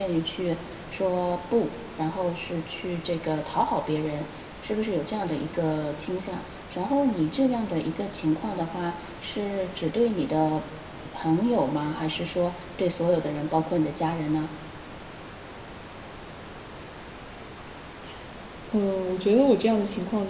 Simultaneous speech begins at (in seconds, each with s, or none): none